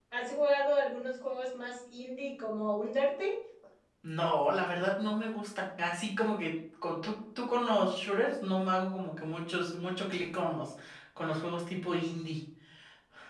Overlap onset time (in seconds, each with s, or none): none